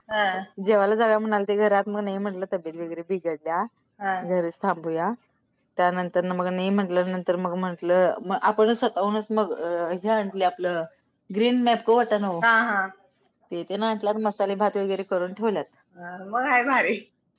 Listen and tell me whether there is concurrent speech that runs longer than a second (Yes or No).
No